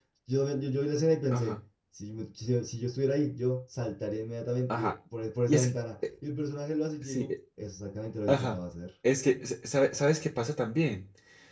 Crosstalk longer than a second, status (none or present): none